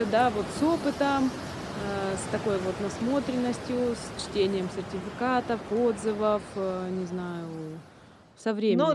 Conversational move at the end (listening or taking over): taking over